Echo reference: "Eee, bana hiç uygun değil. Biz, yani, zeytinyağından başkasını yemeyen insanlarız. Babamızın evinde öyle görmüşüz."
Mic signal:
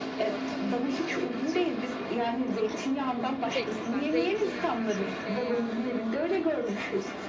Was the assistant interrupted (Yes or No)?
Yes